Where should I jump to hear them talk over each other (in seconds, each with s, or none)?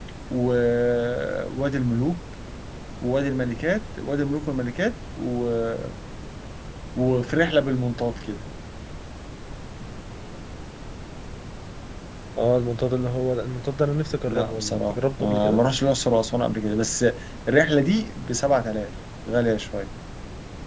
14.3 s